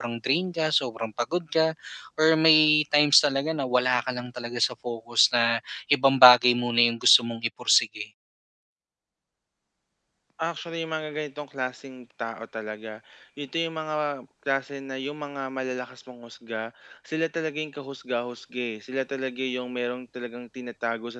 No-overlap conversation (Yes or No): Yes